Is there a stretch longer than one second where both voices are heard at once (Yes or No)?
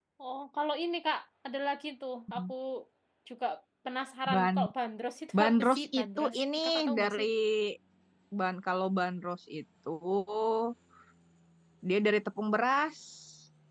Yes